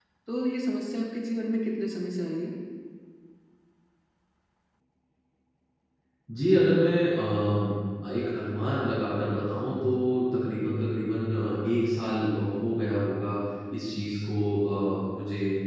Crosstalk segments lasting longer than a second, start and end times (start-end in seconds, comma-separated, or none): none